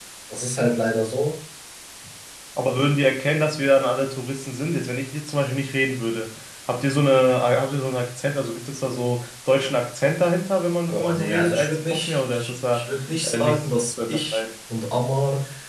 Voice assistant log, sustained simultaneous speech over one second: present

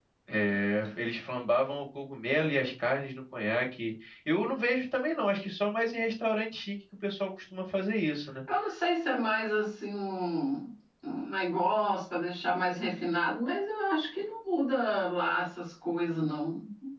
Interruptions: none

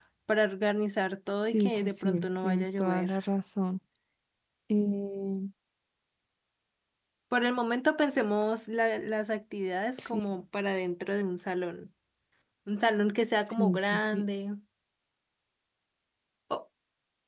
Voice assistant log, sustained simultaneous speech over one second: present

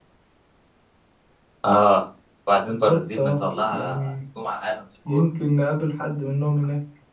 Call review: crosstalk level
present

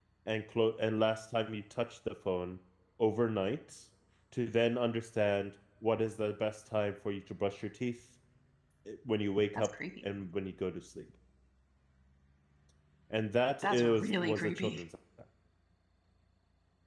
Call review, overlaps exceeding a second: present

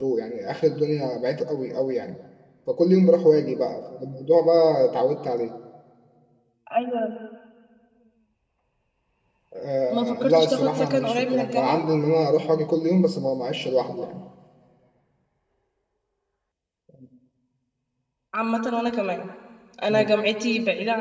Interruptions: present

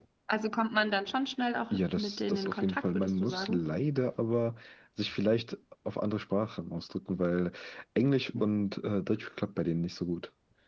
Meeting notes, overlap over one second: present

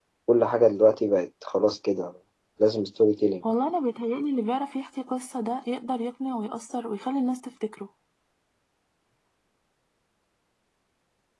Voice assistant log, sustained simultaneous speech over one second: none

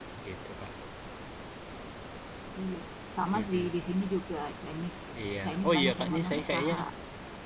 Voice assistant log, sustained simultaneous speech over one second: present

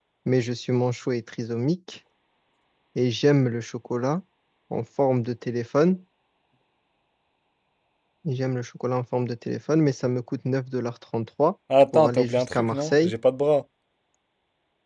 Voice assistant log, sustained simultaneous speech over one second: present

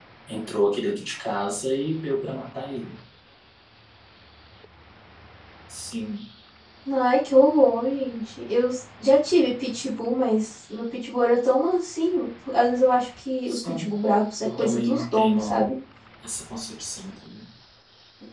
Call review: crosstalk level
present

